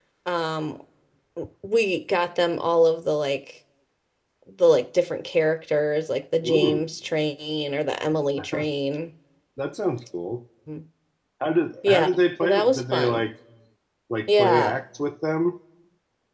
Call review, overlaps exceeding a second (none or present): present